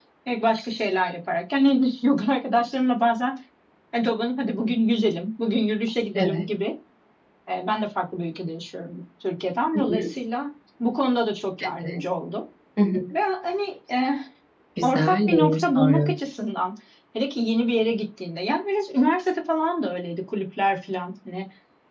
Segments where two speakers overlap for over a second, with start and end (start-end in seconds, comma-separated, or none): 14.8-16.1